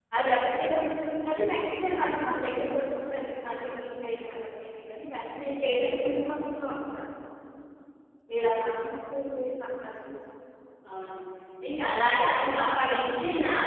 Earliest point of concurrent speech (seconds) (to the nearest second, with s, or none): none